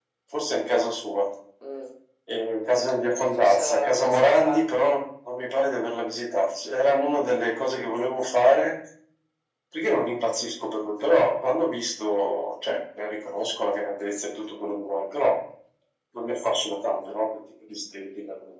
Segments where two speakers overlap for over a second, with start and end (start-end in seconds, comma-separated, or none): 3.2-4.6